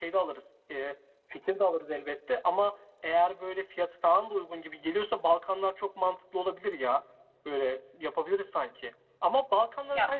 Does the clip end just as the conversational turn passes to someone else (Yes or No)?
No